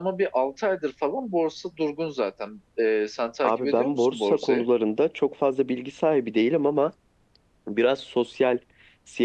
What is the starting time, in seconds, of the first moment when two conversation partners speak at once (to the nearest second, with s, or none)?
3 s